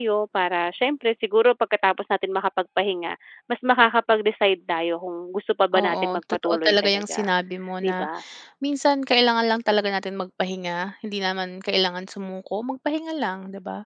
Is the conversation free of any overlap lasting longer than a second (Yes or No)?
No